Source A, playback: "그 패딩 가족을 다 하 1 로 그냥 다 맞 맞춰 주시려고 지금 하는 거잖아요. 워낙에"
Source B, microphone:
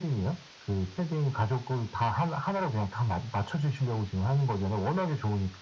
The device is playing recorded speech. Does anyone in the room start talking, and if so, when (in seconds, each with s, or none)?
none